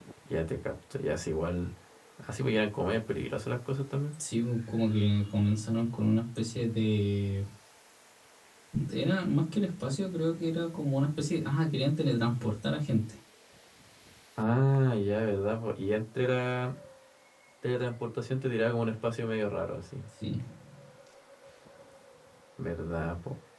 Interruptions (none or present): none